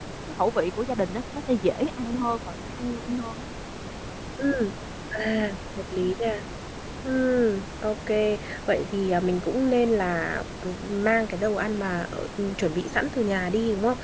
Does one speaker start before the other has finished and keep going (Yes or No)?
No